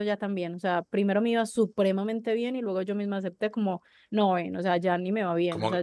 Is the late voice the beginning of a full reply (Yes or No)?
Yes